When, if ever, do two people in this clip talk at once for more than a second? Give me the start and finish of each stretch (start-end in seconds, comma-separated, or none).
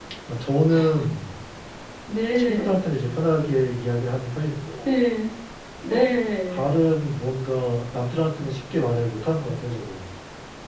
none